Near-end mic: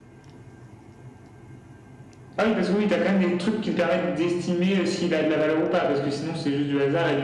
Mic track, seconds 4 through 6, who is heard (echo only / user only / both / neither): echo only